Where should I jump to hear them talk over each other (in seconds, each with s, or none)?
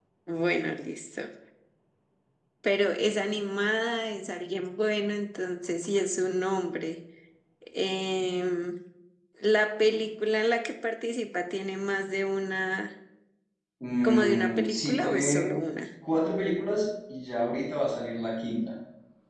14.0 s